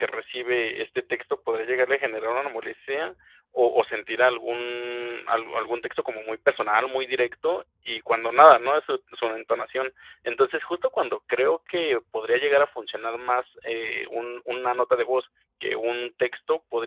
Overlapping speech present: No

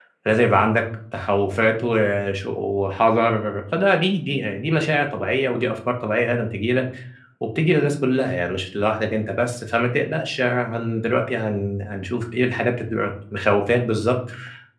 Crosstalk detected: No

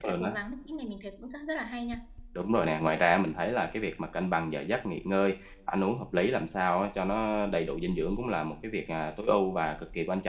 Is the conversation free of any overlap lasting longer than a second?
Yes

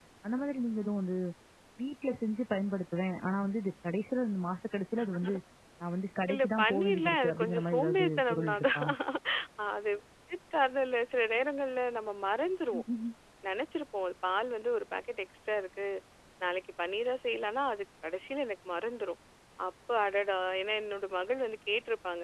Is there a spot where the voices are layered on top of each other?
Yes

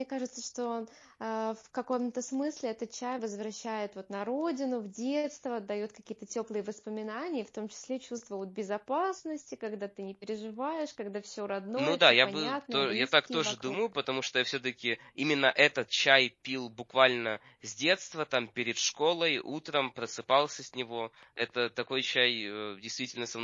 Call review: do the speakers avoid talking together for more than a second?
No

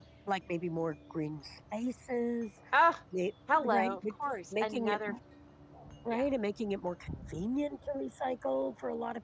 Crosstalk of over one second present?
Yes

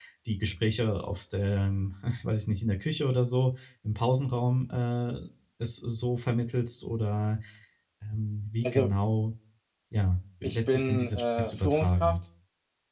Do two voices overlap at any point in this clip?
Yes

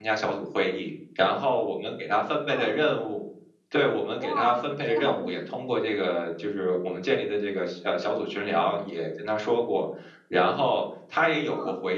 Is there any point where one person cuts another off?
Yes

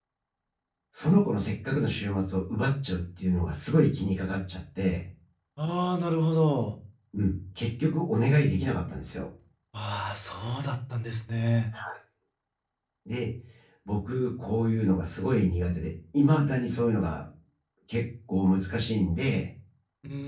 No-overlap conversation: Yes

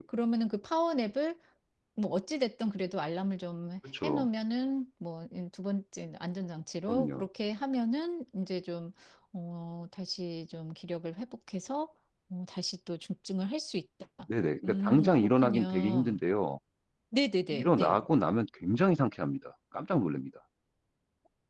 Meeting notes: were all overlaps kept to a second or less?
No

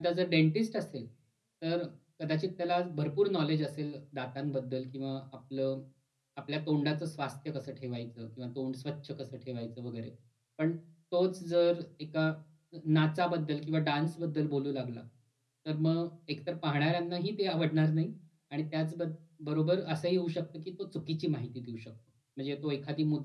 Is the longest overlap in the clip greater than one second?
No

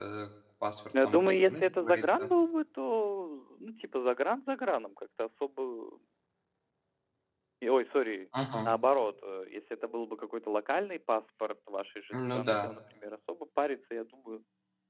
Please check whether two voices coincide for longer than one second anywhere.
Yes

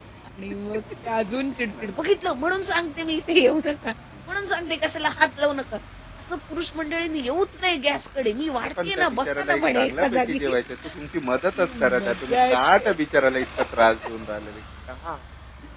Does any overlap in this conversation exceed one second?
Yes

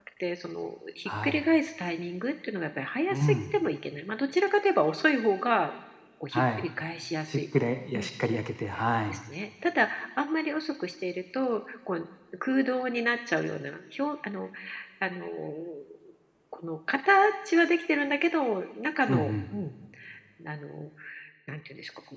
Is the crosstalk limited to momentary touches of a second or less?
Yes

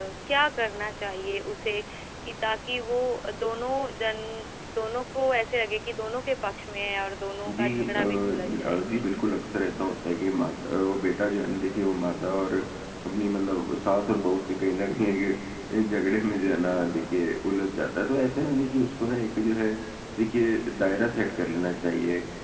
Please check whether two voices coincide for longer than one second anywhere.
Yes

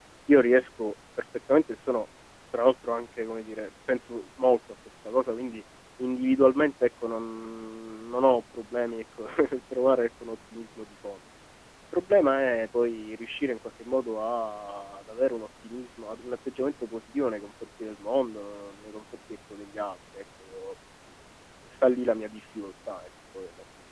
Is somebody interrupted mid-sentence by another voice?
No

